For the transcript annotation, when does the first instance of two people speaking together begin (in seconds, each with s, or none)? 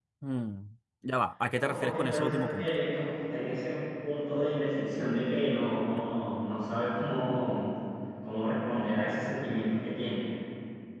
1.6 s